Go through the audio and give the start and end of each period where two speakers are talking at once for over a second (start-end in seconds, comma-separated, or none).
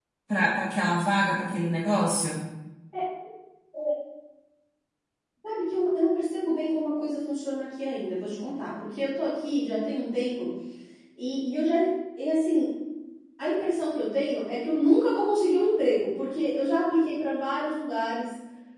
none